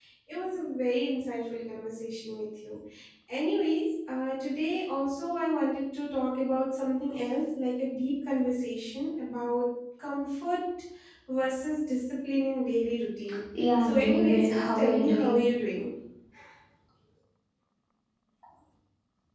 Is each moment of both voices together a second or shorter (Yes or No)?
No